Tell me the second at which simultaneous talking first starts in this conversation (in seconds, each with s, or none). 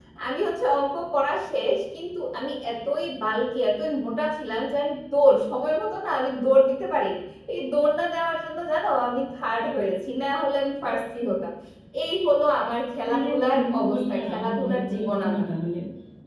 13.0 s